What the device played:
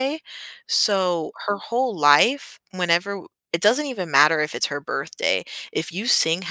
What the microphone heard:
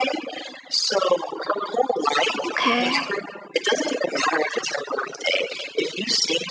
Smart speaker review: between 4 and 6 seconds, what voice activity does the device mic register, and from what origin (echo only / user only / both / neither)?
echo only